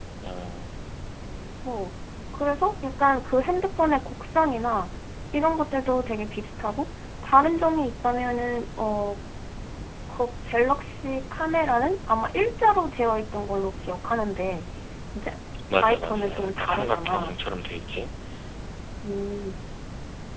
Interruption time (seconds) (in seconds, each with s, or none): 15.8 s